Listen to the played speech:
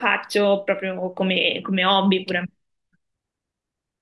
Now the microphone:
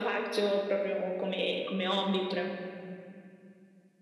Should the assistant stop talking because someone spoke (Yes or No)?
No